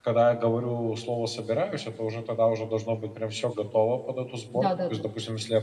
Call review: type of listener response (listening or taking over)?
listening